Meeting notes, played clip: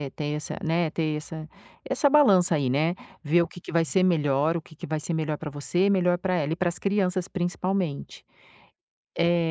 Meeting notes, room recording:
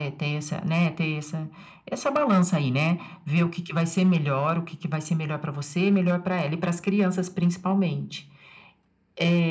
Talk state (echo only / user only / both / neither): echo only